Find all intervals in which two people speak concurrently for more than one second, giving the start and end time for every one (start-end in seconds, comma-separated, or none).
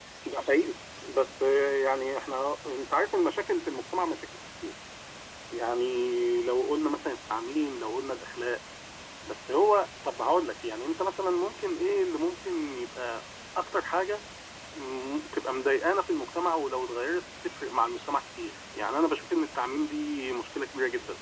none